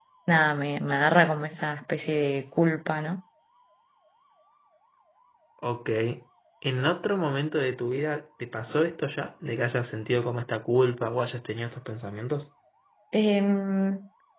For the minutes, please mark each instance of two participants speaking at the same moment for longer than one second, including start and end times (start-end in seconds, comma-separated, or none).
none